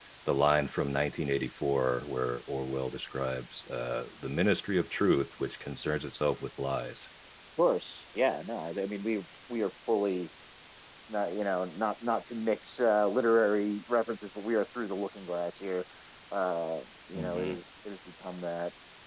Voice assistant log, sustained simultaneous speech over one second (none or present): none